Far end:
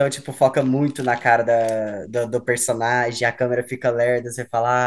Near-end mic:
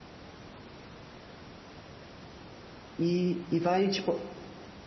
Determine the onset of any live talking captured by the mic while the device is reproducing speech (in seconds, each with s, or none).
3.0 s